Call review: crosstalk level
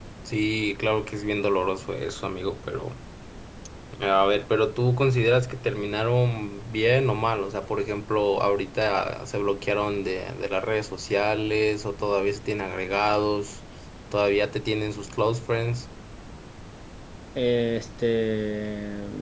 none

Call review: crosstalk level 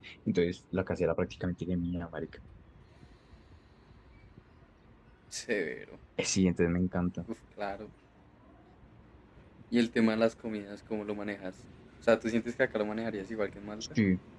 none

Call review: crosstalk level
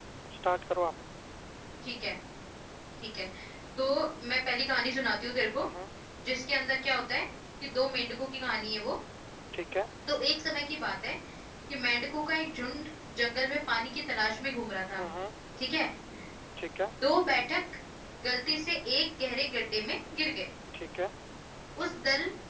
none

